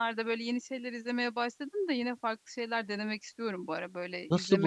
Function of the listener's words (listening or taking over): taking over